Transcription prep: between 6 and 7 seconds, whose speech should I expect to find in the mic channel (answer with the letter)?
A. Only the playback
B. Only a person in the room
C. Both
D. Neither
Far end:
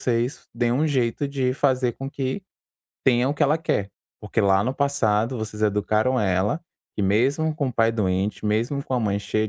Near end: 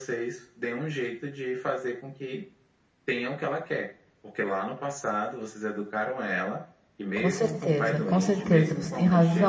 A